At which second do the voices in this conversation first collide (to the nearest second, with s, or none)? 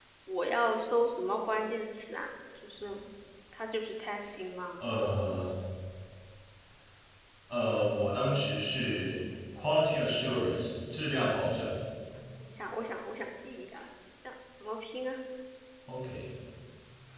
none